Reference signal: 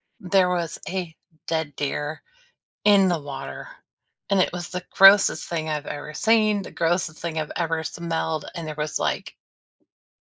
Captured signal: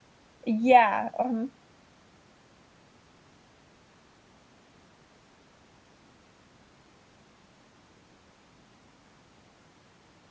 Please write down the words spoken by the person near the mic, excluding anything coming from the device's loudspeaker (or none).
Yeah, mhm.